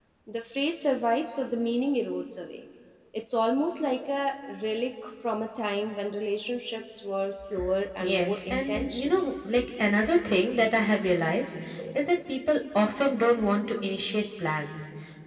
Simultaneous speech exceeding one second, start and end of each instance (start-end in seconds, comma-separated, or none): 8.0-9.2